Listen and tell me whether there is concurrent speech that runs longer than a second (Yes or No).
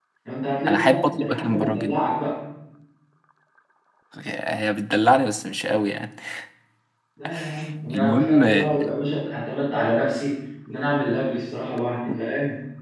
Yes